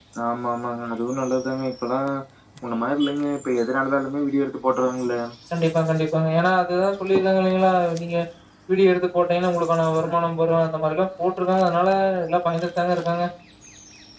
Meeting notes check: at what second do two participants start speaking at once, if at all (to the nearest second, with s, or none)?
none